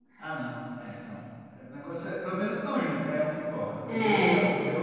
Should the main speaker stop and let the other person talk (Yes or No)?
No